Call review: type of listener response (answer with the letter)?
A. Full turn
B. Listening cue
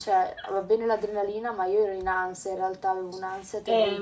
A